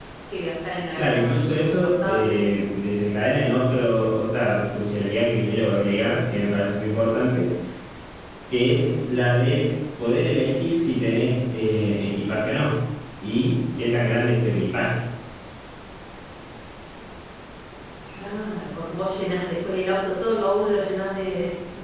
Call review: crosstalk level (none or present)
present